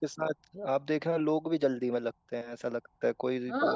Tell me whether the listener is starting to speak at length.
No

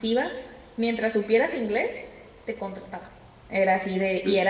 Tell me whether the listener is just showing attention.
Yes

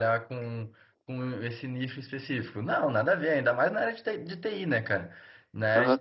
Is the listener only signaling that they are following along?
No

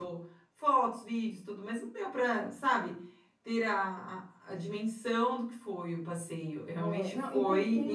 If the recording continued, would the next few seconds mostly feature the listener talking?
Yes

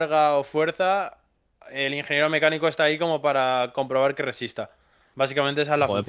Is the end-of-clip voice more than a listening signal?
Yes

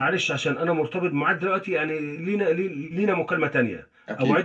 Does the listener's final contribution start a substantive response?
No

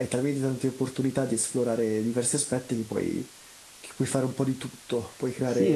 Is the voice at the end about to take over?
Yes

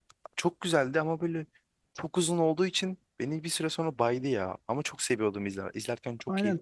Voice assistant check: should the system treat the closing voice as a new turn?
Yes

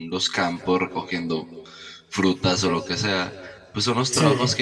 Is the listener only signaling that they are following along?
Yes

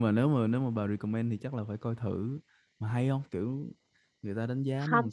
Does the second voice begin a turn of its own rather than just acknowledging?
Yes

